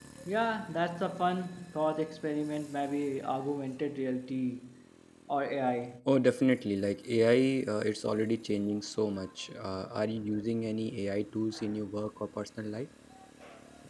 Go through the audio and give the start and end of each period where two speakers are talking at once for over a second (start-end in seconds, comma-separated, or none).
none